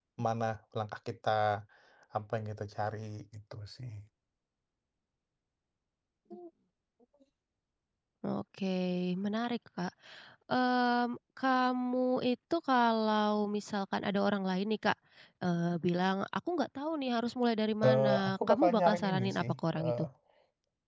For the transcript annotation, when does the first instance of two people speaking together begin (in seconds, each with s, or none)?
17.8 s